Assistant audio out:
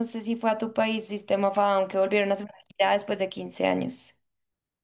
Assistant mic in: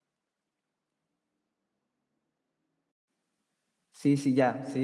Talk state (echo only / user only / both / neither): user only